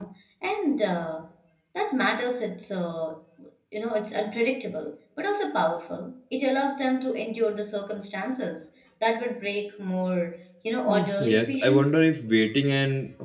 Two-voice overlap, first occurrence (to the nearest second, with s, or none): 11 s